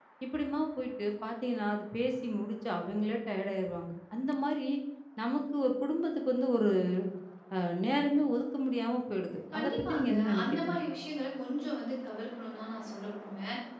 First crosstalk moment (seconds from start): 9.5 s

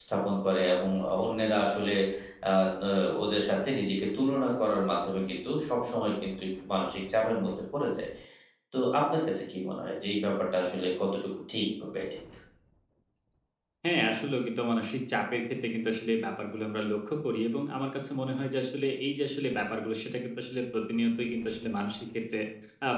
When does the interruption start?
none

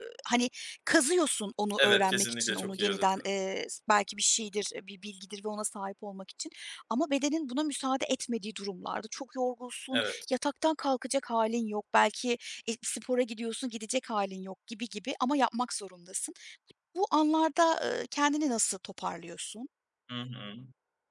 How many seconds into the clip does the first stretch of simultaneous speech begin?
1.8 s

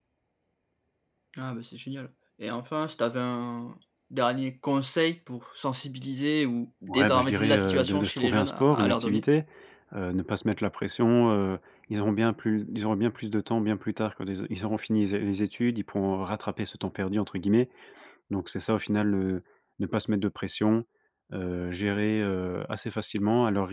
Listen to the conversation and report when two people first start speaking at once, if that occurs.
6.9 s

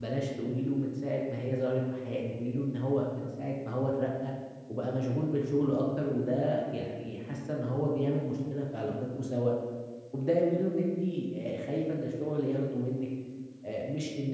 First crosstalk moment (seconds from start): none

